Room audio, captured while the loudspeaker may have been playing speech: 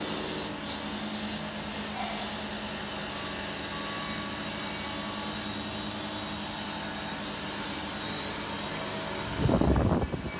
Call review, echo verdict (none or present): none